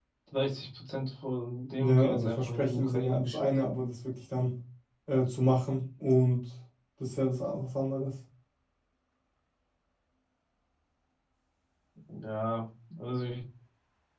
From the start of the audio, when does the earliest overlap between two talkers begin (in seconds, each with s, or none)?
1.8 s